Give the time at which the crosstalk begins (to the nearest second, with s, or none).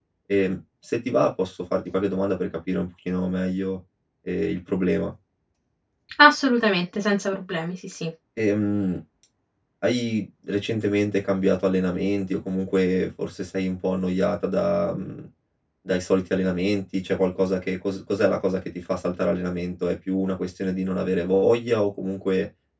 none